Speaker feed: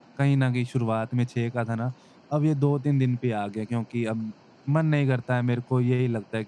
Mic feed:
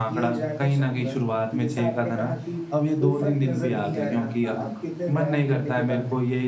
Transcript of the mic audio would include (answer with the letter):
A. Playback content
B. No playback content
A